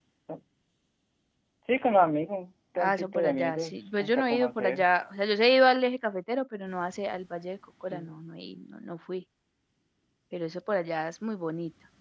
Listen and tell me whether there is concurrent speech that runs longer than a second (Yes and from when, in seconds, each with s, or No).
Yes, from 2.8 s